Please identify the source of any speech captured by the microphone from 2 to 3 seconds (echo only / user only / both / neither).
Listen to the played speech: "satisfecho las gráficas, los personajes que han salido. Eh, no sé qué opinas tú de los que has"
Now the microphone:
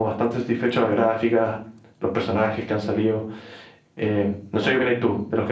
echo only